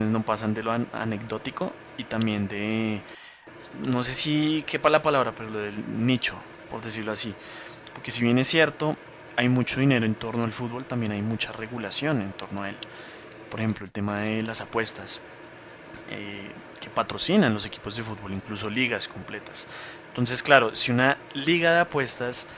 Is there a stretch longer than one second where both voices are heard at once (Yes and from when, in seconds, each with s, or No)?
No